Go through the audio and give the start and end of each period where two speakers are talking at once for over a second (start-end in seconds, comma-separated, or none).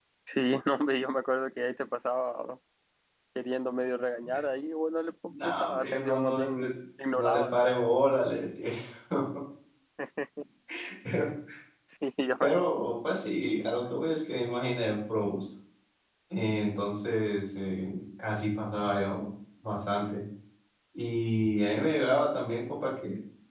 5.4-6.7